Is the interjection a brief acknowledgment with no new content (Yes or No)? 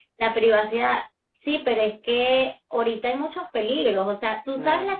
Yes